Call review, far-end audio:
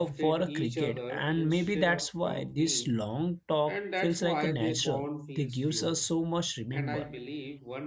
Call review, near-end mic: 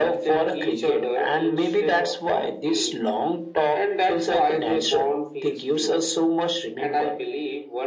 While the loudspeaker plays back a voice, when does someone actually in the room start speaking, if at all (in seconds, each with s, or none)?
none